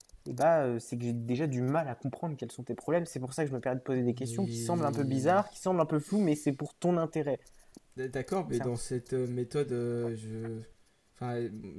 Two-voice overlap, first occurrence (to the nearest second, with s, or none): 4 s